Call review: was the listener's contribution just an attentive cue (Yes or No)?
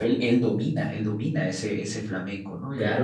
No